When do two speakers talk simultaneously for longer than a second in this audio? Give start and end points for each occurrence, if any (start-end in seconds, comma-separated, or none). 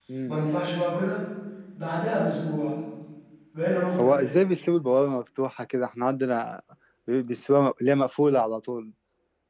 none